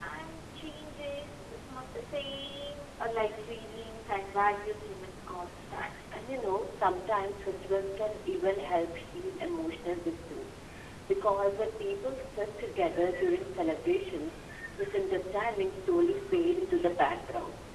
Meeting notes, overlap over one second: none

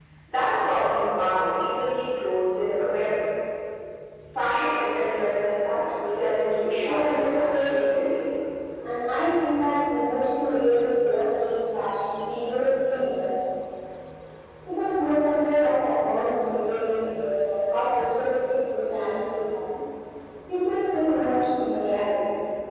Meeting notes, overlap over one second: present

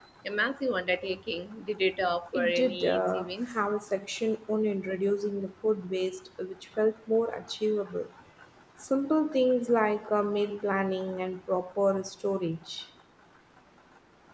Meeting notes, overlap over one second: present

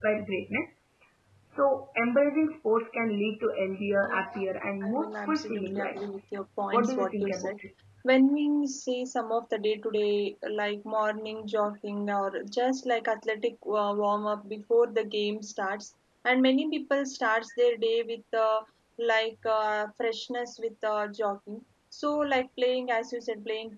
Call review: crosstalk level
present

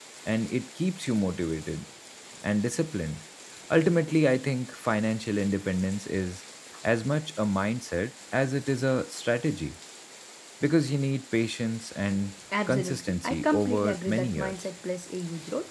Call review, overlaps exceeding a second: present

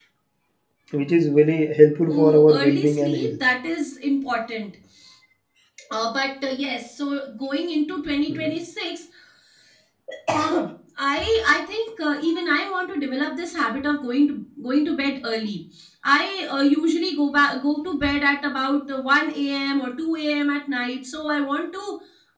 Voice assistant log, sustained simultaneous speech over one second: present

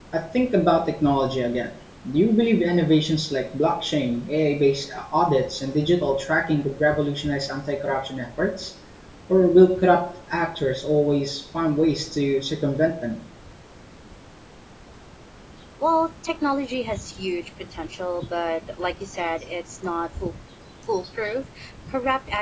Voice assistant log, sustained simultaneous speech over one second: none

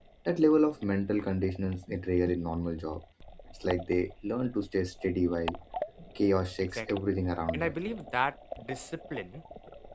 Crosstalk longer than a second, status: none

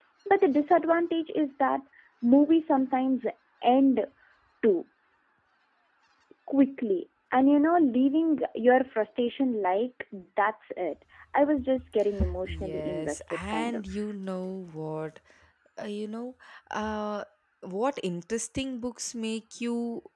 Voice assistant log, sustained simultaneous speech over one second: present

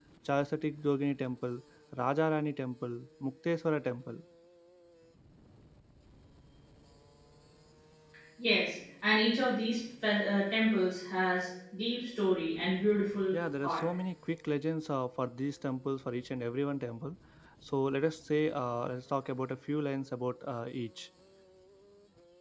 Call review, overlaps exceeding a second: none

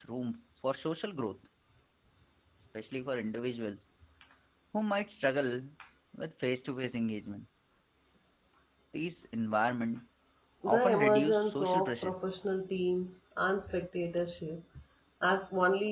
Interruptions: present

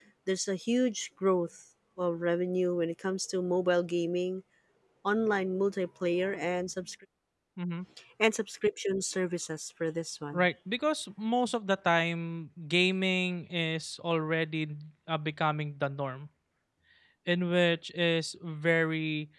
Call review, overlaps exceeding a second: none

